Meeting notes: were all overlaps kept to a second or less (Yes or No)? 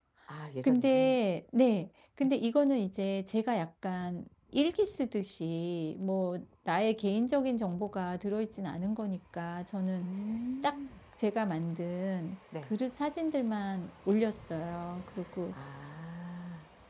Yes